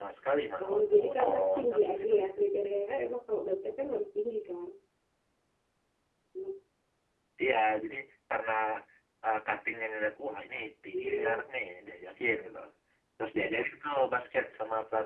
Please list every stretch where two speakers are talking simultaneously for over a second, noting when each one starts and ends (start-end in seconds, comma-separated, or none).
0.6-2.1